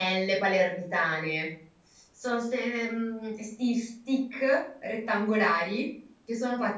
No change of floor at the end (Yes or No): Yes